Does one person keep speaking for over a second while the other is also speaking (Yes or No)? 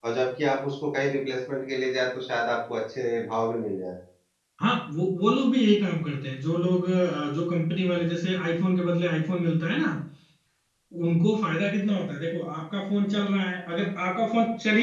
No